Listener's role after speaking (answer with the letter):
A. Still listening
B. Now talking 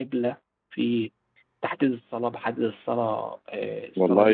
B